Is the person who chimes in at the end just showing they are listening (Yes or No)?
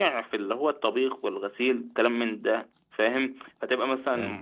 Yes